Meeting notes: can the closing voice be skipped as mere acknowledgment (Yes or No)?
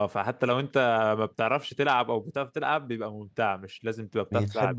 Yes